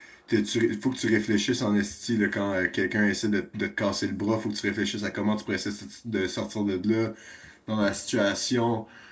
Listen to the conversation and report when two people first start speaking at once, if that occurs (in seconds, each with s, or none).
none